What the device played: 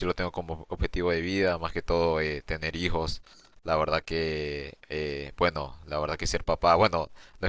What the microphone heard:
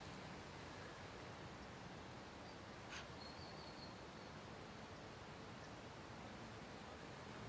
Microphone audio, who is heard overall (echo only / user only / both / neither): neither